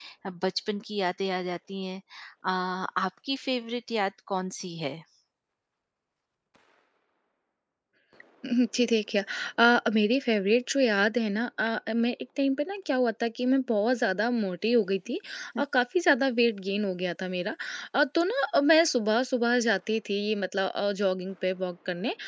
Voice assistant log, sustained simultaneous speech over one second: none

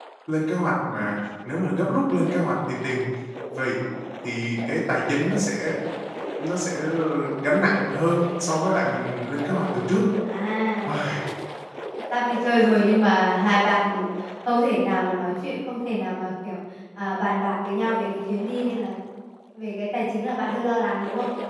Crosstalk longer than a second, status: none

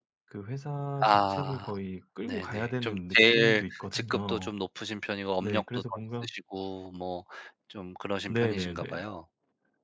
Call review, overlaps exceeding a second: present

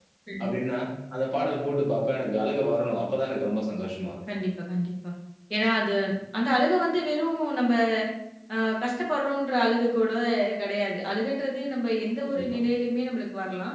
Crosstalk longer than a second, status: none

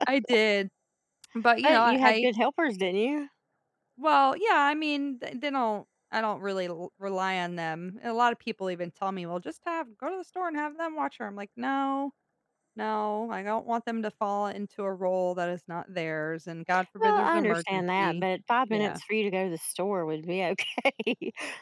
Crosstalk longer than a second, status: present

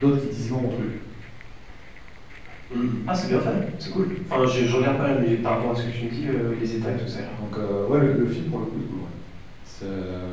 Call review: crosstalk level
none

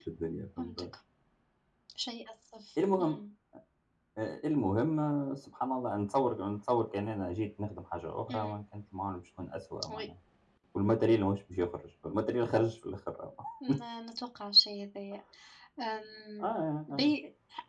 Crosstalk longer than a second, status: none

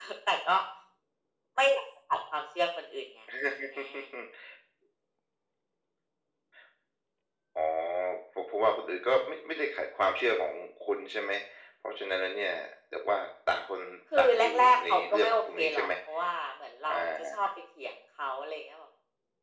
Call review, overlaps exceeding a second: present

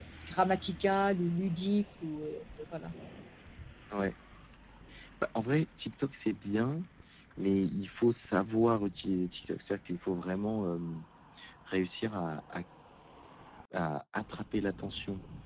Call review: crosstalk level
none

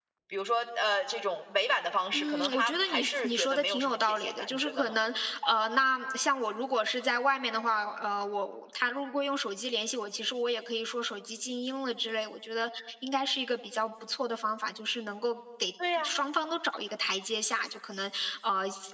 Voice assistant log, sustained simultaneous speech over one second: present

